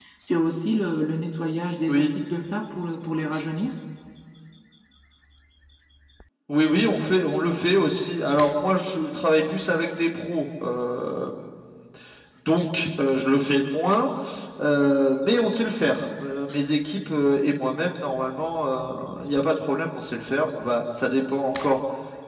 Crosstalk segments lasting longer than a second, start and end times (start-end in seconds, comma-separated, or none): none